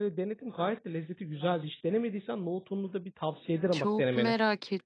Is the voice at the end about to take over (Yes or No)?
Yes